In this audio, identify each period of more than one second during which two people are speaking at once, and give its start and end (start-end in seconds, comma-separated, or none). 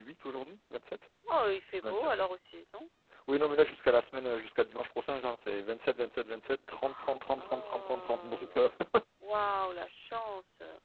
7.4-8.6